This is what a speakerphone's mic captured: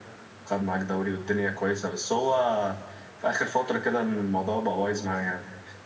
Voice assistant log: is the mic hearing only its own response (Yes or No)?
Yes